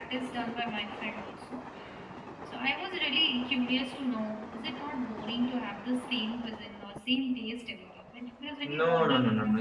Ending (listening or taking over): taking over